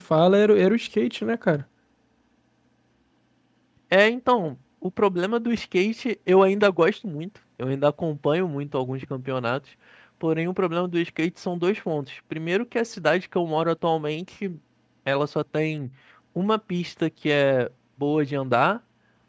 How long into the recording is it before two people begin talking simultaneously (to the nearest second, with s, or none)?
none